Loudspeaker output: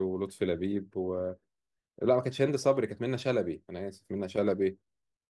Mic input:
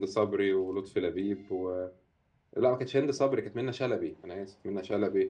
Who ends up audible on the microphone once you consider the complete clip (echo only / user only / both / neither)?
echo only